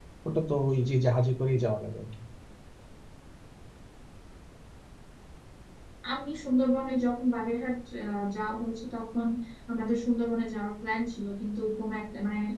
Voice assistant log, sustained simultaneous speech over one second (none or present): none